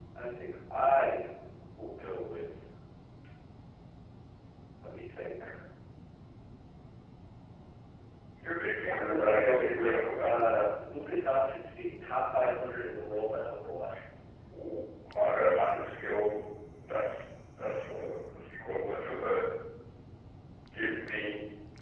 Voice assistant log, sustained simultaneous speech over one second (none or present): present